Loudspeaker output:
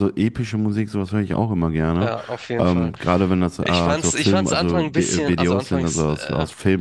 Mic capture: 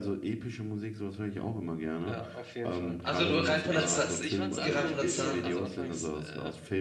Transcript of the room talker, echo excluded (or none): Also nur rein von der Zahl, rein von der Zahl her.